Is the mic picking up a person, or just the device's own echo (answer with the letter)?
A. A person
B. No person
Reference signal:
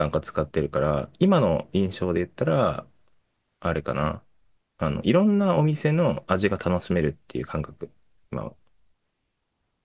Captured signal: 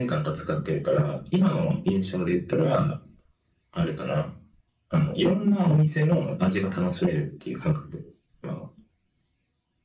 B